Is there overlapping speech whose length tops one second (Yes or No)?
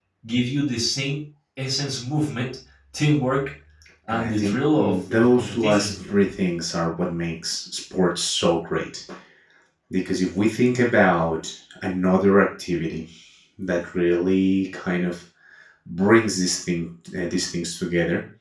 Yes